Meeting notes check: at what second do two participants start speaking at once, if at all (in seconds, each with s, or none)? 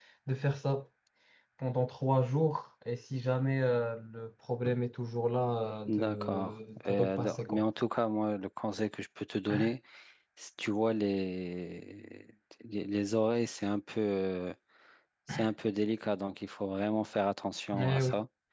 5.9 s